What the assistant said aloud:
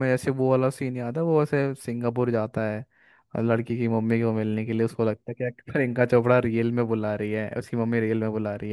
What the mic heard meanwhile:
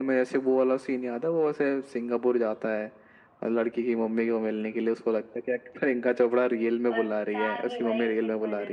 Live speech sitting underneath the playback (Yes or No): Yes